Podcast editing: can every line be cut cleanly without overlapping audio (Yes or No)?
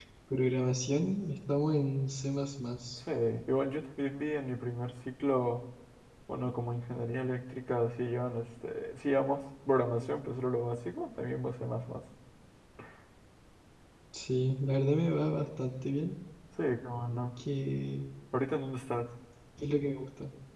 Yes